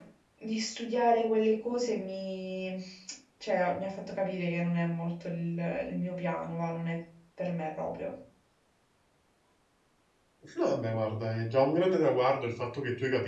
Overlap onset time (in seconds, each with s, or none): none